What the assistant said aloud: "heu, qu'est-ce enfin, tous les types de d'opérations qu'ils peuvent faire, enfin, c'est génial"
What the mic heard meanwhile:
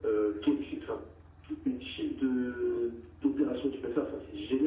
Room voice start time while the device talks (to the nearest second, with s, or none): none